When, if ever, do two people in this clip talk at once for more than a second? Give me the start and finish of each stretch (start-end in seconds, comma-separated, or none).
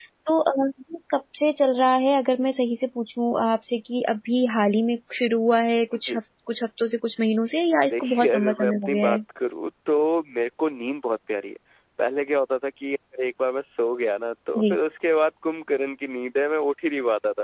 7.9-9.2